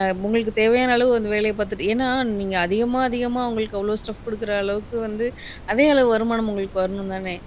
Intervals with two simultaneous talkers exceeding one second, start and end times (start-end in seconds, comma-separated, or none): none